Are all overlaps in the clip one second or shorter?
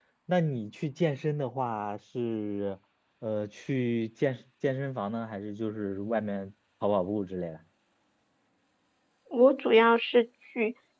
Yes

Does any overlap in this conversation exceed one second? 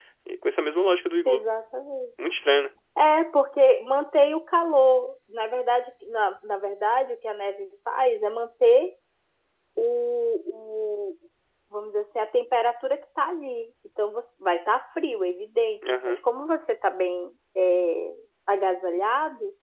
No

